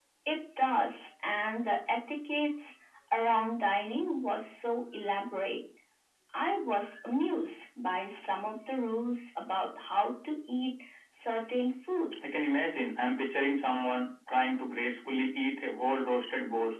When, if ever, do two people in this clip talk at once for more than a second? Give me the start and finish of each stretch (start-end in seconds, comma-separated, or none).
none